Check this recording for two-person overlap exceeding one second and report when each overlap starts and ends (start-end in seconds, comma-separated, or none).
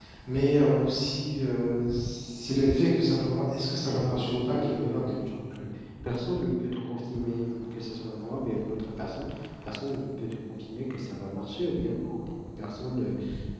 3.9-5.1